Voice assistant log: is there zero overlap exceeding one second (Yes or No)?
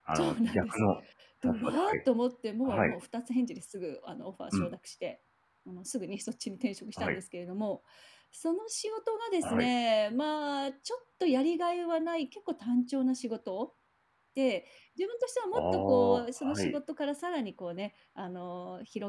No